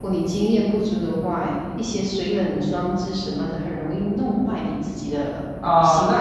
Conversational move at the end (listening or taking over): taking over